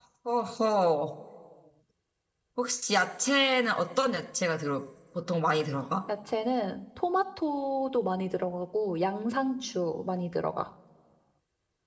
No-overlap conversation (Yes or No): Yes